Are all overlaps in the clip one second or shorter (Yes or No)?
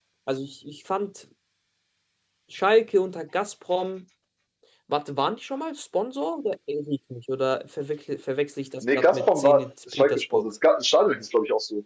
No